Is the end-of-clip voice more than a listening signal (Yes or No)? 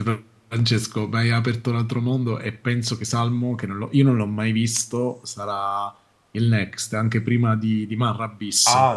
Yes